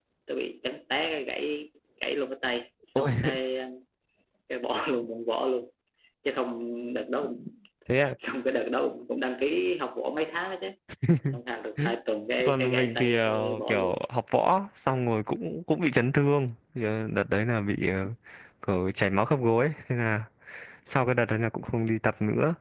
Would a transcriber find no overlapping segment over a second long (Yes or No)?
No